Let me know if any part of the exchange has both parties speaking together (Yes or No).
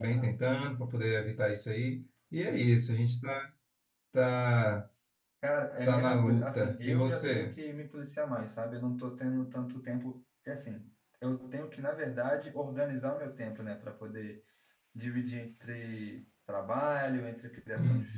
Yes